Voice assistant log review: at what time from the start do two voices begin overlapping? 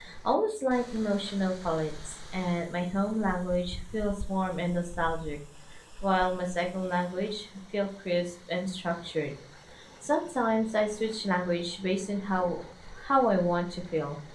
none

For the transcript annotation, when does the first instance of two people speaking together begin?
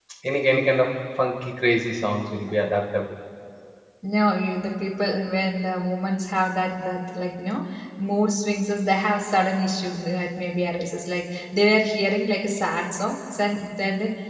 none

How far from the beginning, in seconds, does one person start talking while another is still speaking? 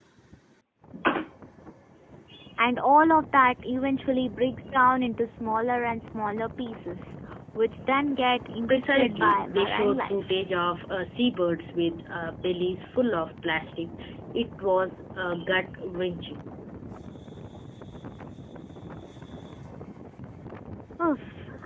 8.7 s

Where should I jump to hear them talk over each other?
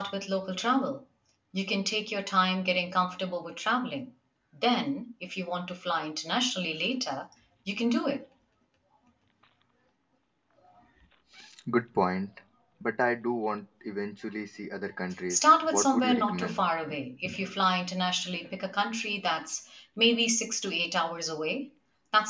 15.3 s

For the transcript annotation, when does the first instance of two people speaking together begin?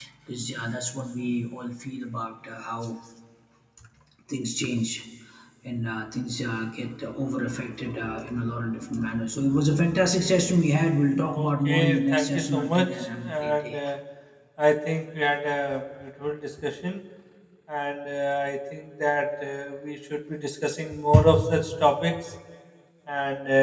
11.3 s

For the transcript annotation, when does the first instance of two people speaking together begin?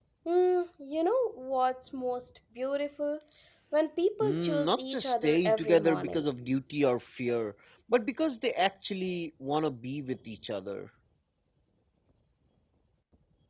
4.2 s

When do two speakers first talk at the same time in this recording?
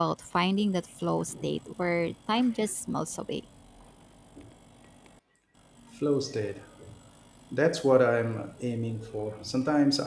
none

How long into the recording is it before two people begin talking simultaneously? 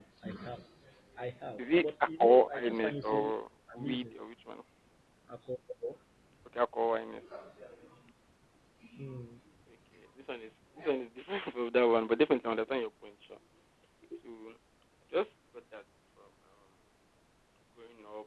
1.6 s

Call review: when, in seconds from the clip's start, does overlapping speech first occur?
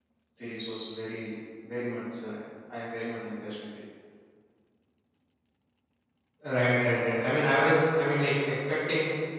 none

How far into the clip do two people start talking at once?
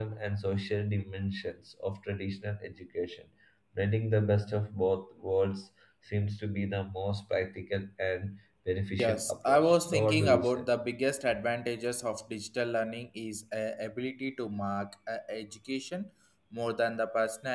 9.0 s

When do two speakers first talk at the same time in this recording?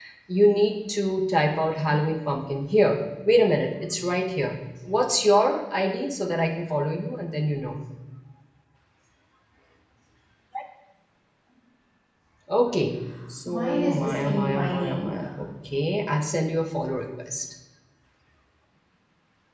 13.4 s

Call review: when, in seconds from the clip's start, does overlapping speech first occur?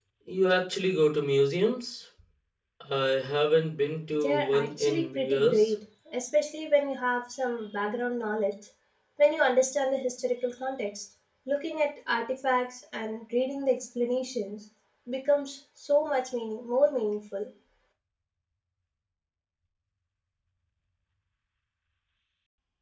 4.2 s

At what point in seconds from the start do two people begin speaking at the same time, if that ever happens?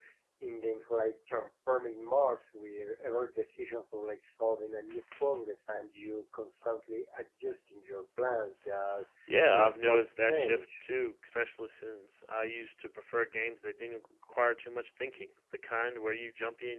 9.3 s

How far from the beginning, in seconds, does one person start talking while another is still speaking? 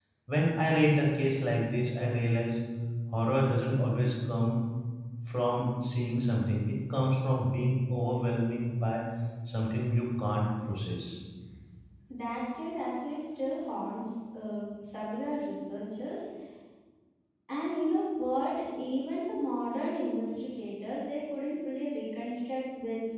none

